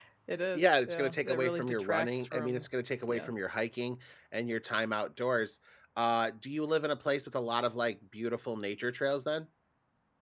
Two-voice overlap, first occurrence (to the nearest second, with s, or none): 1 s